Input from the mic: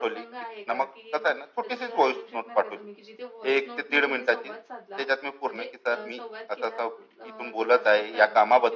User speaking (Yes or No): Yes